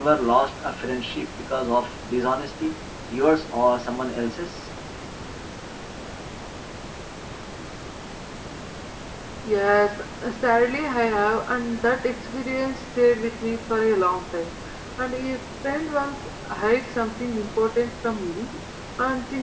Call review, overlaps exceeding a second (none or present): none